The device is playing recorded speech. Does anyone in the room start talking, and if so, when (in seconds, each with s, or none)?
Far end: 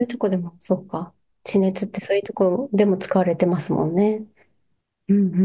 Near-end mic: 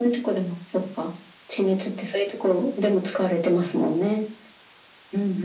none